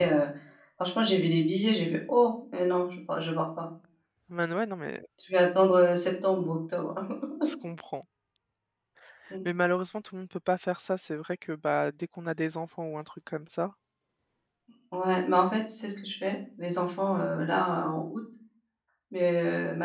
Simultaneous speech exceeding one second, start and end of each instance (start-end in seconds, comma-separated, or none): none